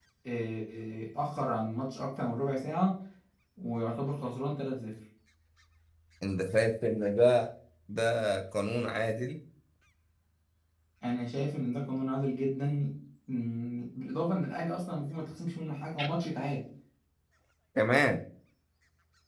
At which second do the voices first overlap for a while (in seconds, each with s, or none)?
none